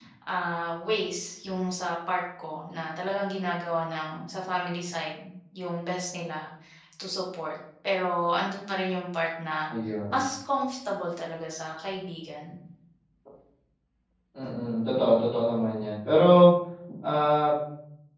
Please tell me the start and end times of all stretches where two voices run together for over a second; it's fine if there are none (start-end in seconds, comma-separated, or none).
none